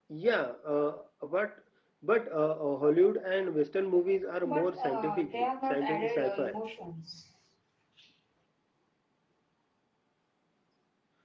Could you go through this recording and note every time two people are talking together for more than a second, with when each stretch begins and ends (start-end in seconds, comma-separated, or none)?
4.5-6.6